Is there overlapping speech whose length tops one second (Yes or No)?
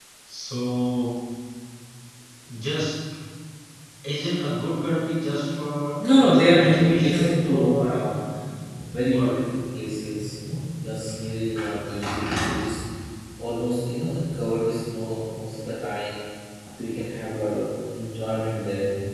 Yes